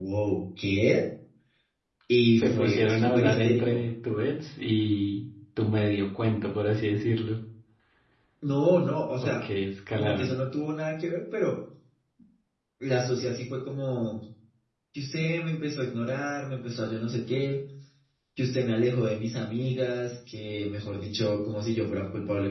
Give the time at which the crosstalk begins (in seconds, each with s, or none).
2.4 s